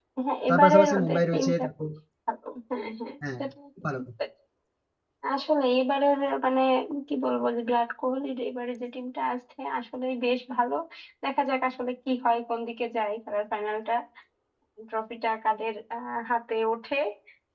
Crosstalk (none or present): present